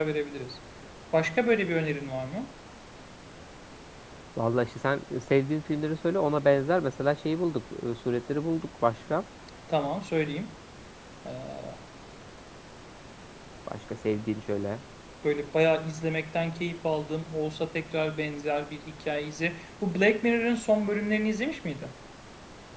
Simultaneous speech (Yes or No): No